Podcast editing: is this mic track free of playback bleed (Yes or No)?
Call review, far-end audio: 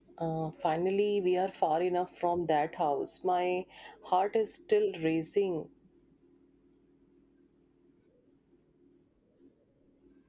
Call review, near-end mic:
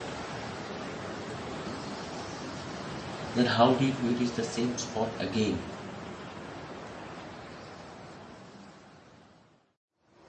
Yes